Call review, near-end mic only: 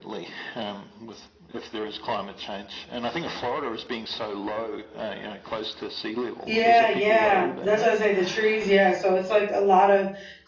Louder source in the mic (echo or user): user